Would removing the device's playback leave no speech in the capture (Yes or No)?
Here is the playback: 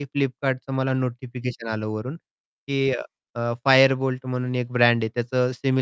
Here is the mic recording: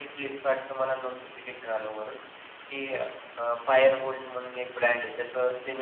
Yes